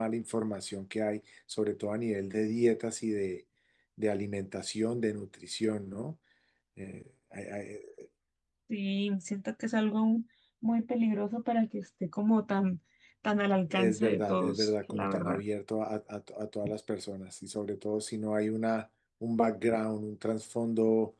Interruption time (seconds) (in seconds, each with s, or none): 13.7 s